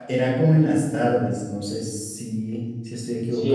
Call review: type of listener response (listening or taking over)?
taking over